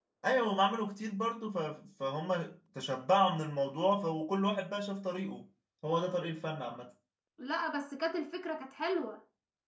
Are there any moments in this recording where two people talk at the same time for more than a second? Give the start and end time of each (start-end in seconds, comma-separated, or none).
none